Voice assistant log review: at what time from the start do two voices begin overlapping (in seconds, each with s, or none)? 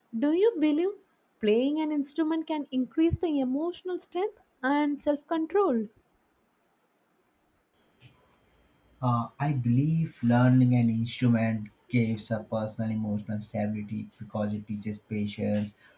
none